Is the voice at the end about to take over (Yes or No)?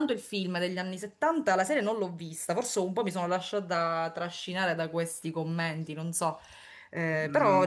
Yes